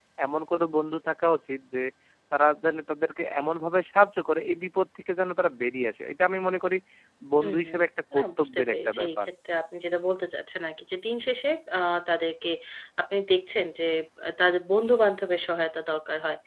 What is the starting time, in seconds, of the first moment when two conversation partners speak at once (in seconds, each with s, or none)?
7.4 s